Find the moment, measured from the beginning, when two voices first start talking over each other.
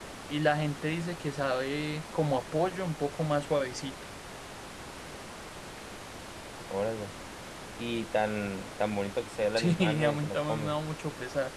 10 s

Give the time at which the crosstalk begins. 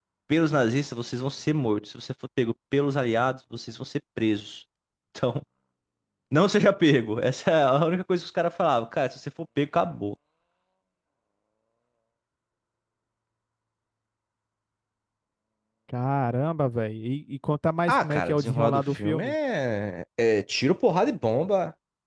18 s

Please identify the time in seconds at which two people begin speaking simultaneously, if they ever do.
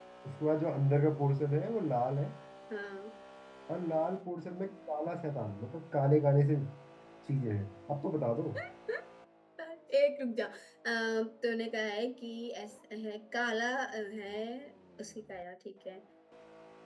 none

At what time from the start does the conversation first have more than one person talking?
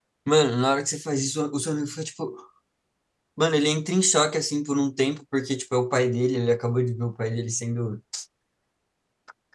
none

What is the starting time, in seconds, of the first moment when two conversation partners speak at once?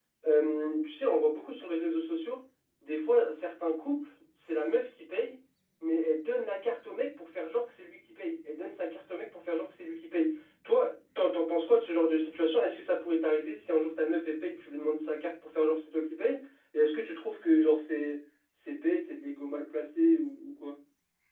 none

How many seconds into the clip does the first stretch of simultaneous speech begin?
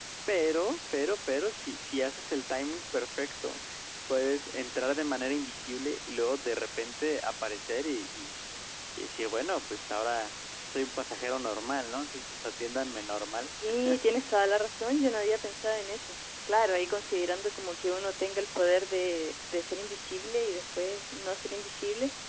none

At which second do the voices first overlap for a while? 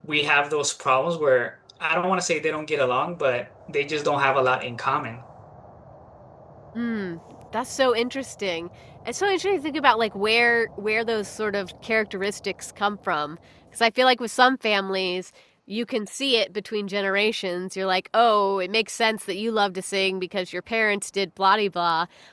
none

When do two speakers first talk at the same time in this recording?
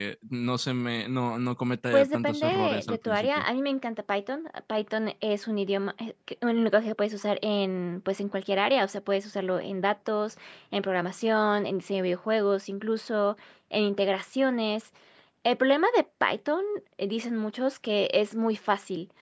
2 s

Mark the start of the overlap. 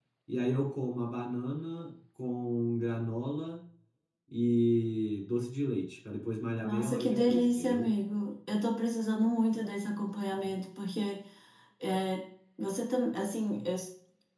7 s

